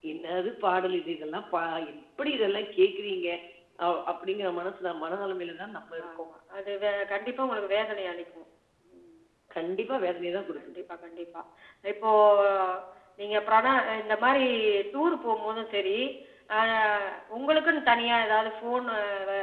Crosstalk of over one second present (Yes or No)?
No